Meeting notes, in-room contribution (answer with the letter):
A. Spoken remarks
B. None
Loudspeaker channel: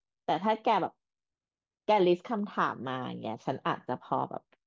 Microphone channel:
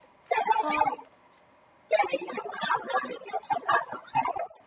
A